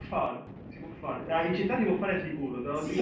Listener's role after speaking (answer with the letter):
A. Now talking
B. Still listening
A